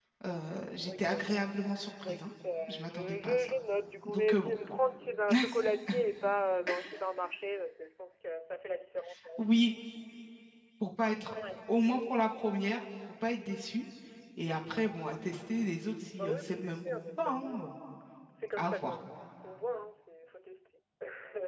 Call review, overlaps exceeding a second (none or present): present